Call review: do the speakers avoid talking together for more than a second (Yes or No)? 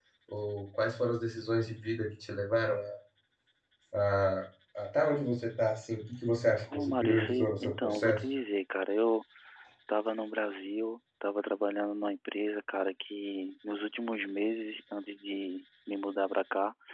No